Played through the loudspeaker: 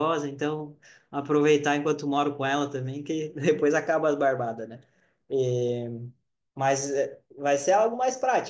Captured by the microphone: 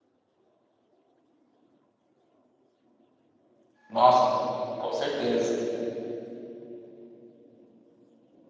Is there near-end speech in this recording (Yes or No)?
Yes